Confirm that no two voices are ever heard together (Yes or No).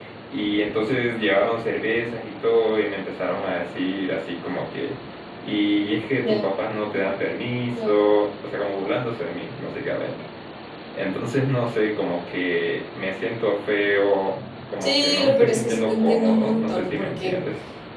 No